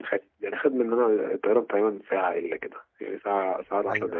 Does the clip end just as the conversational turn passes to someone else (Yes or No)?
Yes